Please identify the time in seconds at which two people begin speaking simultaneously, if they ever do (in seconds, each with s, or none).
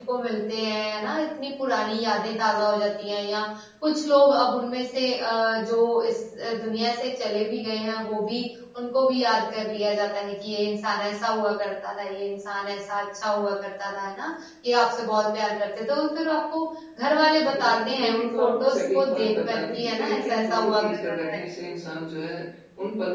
17.6 s